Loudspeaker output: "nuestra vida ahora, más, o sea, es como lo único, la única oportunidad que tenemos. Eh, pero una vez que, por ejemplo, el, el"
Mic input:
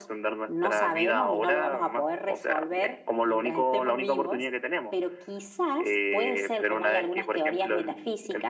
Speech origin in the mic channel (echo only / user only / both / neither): both